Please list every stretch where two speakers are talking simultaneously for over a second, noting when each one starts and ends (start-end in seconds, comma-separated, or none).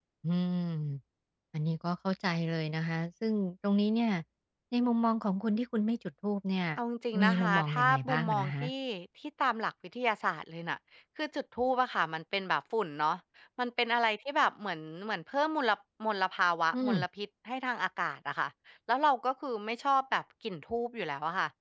7.2-8.6